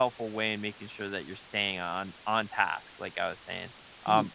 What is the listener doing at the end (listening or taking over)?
listening